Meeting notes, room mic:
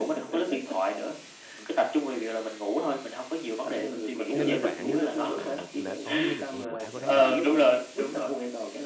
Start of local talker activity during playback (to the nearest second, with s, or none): 4 s